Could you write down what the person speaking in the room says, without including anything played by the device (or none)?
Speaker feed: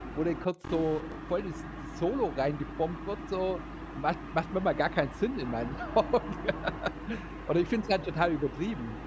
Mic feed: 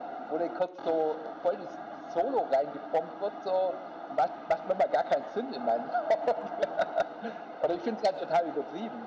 none